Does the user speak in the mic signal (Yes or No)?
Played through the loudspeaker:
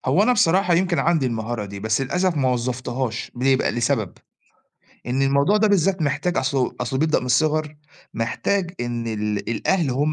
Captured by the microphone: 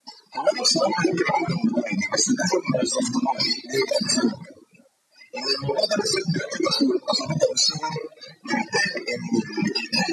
No